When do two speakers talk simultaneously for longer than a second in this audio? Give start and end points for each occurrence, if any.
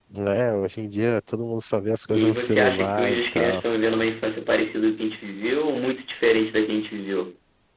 2.1-3.6

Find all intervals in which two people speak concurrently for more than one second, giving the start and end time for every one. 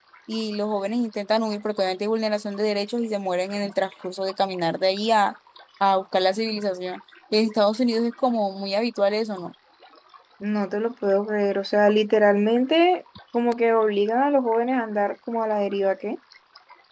none

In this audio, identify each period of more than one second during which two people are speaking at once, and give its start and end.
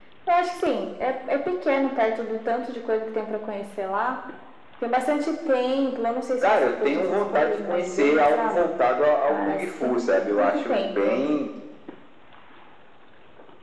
6.4-8.7, 9.3-11.2

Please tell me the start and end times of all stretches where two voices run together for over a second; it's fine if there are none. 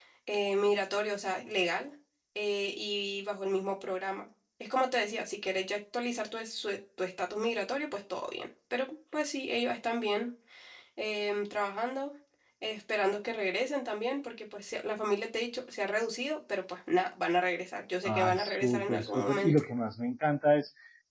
18.0-19.5

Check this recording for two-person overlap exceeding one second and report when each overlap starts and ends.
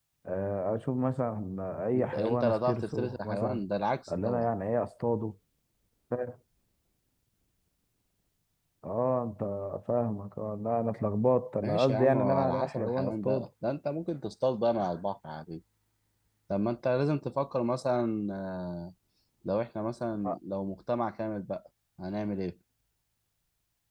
1.9-3.6, 11.6-13.5

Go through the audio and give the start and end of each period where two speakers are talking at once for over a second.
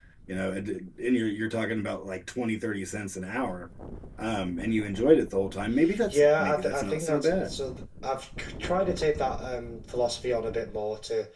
6.1-7.6

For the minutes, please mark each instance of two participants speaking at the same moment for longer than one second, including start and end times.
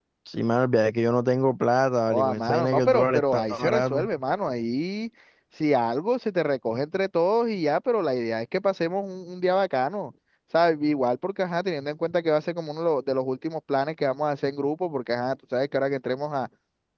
2.1-4.1

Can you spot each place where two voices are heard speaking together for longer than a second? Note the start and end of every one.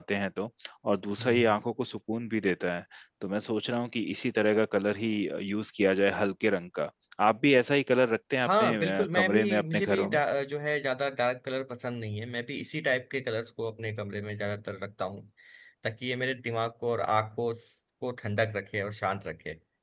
8.4-10.2

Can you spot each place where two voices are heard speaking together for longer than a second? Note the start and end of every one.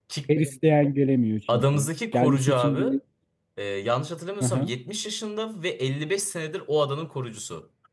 1.5-2.8

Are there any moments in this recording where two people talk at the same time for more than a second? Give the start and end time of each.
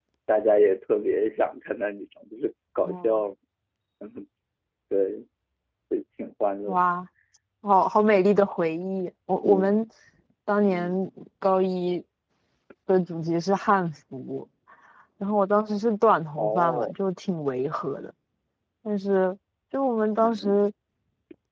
none

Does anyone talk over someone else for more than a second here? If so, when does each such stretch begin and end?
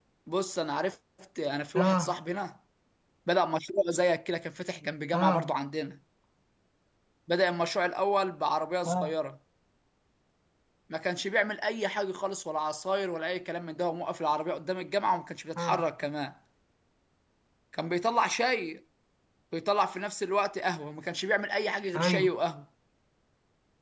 none

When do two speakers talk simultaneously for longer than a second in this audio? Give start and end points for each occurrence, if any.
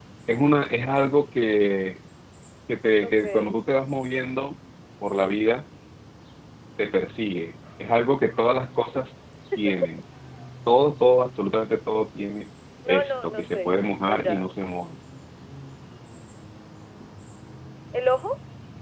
12.9-14.5

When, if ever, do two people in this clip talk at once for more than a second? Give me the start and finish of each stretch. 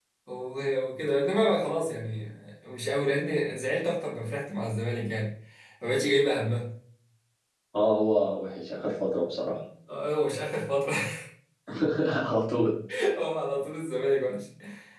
none

